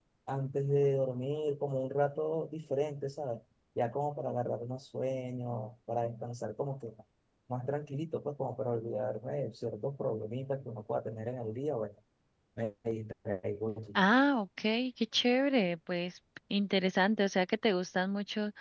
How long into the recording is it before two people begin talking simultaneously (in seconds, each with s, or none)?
none